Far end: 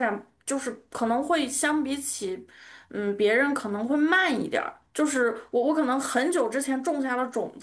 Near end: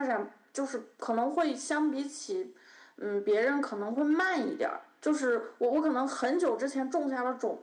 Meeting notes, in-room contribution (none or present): none